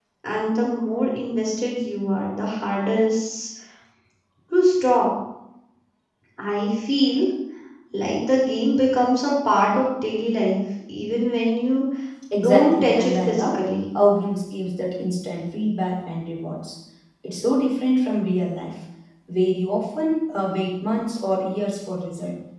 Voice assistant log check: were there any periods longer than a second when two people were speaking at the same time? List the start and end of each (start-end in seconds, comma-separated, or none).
12.4-13.6